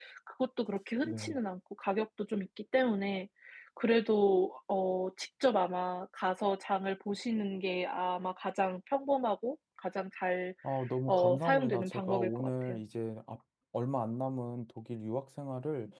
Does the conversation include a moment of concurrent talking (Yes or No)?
Yes